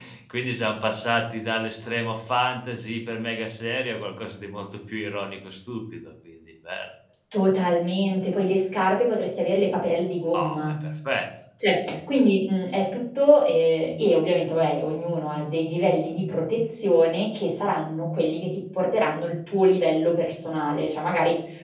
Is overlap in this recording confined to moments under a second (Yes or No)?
Yes